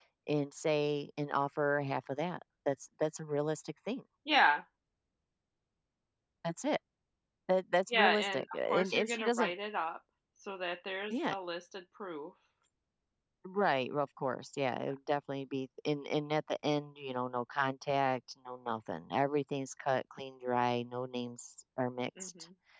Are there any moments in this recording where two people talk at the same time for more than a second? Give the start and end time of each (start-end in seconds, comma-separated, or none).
7.9-9.5